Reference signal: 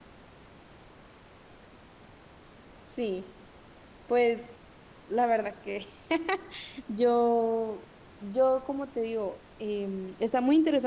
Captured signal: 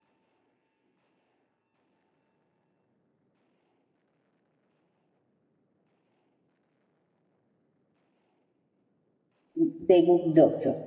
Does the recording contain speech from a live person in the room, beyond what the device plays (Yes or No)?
Yes